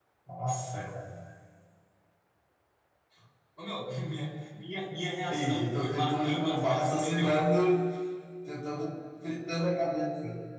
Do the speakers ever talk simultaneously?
Yes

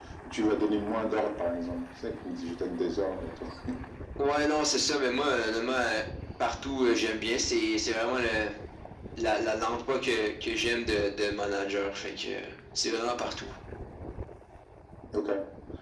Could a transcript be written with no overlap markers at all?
Yes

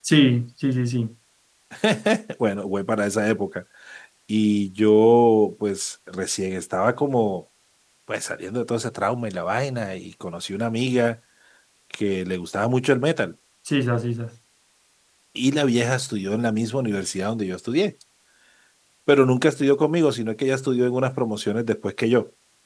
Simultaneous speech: No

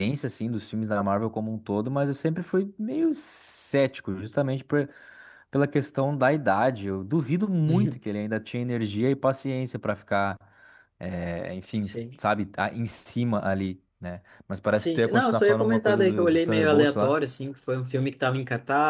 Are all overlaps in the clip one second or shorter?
No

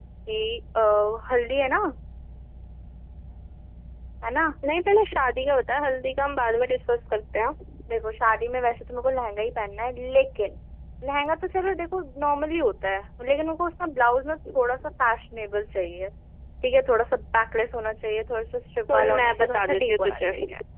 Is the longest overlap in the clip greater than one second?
Yes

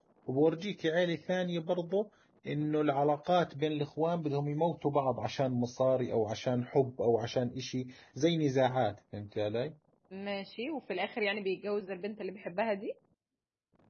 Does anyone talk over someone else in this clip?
No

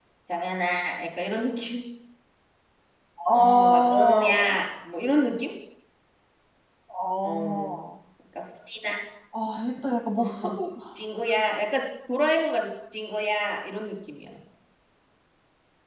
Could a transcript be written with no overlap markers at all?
No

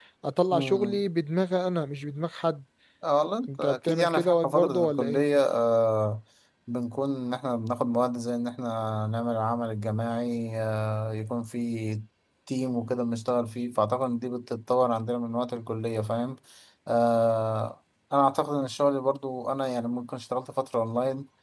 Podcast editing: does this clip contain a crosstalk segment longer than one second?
Yes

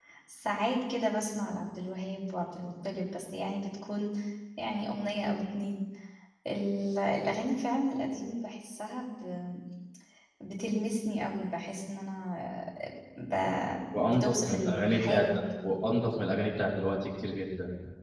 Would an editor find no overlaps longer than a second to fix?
No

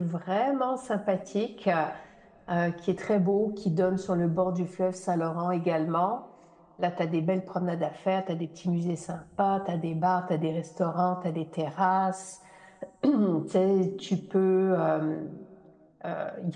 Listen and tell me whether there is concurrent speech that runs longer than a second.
No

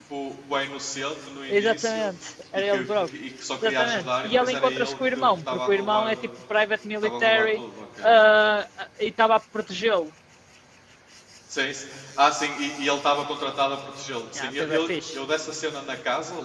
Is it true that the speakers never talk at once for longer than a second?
No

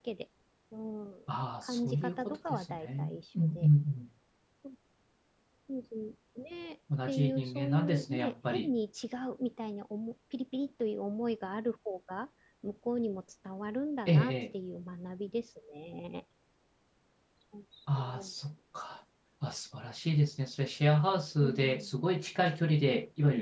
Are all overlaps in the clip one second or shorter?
No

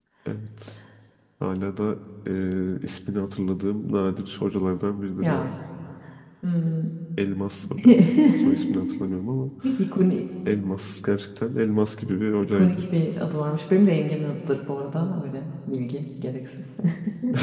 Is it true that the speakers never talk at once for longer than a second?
Yes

